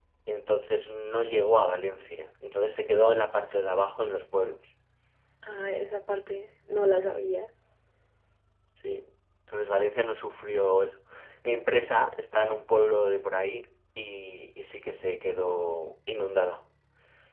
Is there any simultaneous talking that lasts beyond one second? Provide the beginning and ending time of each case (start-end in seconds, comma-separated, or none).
none